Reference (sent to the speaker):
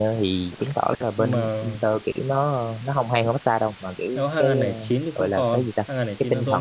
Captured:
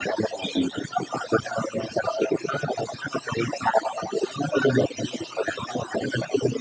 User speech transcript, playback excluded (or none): none